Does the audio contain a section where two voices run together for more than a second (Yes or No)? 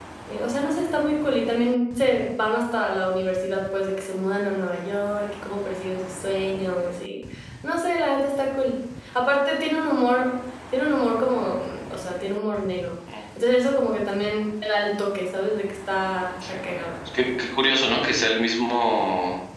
No